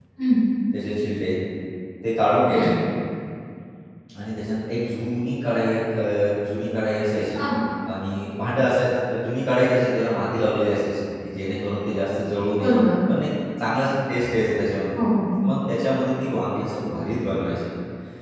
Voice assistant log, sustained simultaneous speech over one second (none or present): none